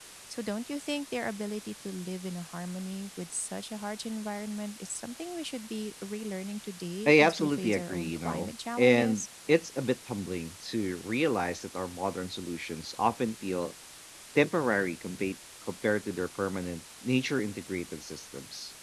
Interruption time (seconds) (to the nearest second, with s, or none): 7 s